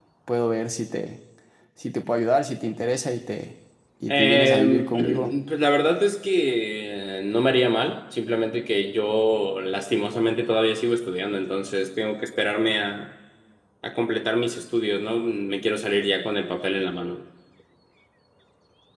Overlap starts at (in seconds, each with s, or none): 4.1 s